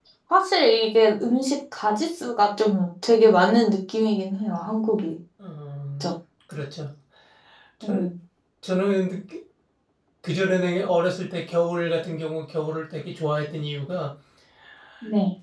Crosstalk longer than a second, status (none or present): none